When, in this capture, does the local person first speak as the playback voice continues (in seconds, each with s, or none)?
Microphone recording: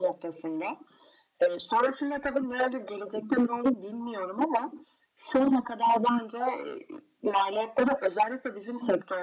none